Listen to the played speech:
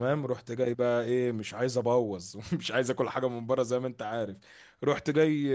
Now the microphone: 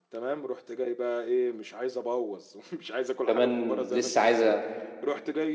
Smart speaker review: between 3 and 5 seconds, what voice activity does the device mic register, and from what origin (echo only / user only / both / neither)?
both